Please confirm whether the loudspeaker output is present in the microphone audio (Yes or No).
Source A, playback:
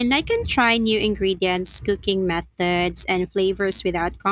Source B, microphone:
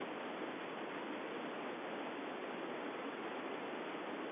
No